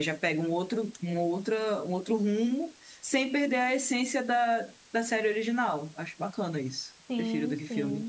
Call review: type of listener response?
taking over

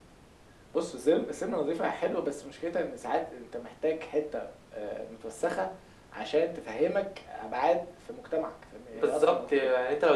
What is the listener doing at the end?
taking over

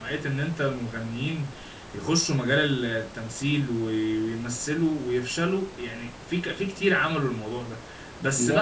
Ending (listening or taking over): listening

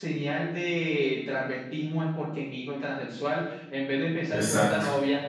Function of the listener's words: listening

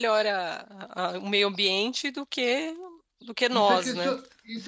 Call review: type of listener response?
taking over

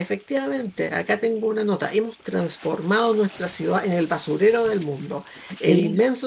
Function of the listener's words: listening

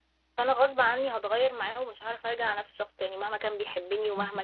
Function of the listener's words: listening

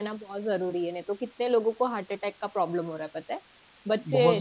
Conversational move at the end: listening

